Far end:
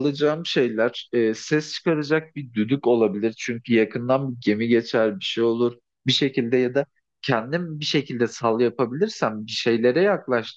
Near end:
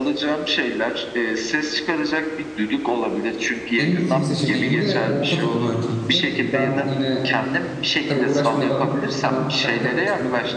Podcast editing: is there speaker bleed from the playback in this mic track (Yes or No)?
Yes